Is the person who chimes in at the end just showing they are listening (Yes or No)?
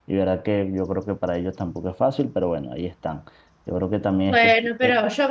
No